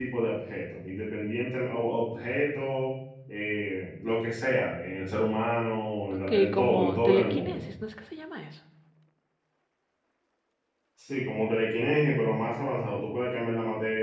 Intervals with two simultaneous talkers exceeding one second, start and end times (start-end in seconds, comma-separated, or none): 6.3-7.6